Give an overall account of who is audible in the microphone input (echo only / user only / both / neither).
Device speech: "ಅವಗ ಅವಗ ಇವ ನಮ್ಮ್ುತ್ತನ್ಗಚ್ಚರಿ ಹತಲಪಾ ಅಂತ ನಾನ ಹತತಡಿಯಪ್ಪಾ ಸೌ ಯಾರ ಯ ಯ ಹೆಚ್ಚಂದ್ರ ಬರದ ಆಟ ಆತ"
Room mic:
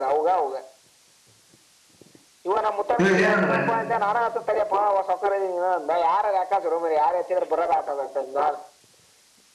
both